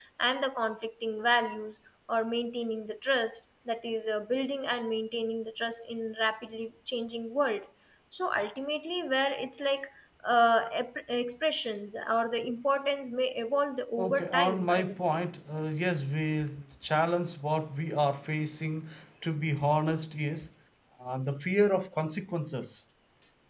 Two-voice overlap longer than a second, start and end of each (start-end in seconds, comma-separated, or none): 14.0-15.2